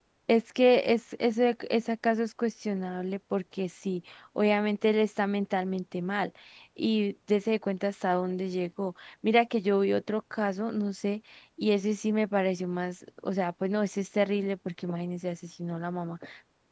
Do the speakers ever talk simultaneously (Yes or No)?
No